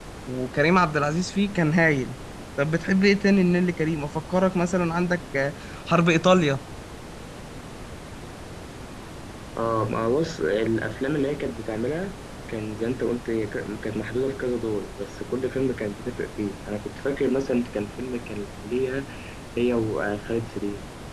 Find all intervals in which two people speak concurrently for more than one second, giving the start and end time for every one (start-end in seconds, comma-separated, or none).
none